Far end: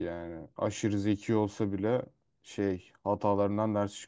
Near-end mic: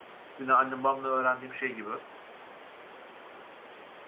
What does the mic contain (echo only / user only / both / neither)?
user only